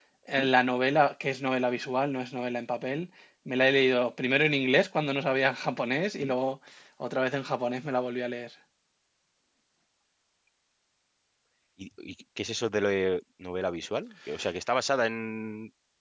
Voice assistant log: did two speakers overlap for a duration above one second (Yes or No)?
No